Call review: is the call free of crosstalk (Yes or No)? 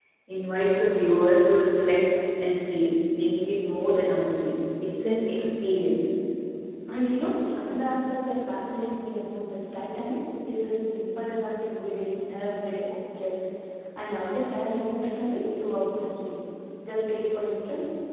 Yes